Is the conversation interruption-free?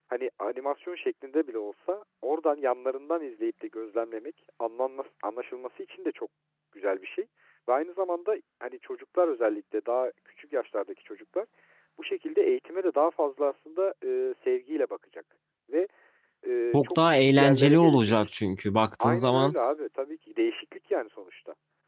No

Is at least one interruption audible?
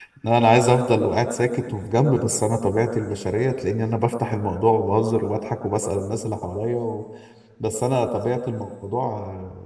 No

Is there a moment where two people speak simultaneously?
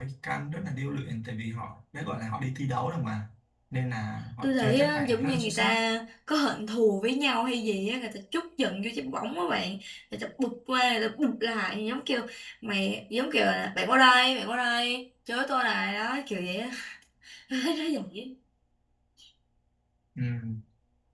Yes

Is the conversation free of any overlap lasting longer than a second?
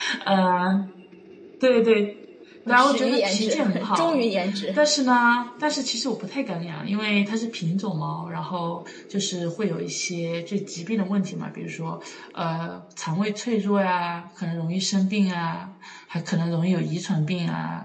No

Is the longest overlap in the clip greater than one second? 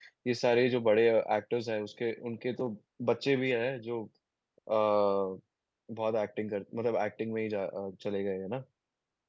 No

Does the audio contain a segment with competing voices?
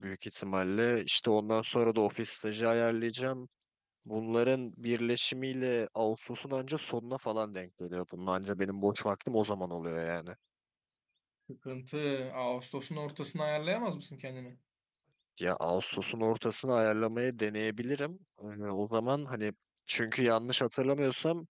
No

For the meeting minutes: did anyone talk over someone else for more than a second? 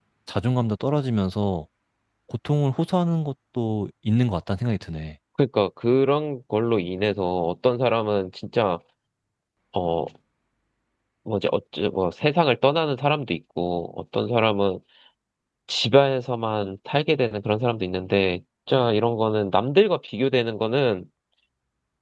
No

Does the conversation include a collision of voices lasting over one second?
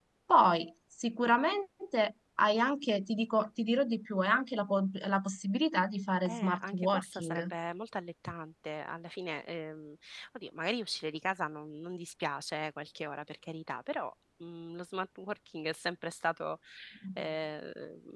Yes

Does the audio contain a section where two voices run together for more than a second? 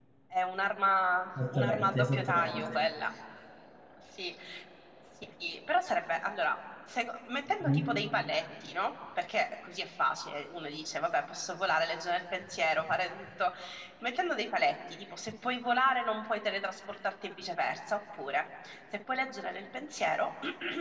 Yes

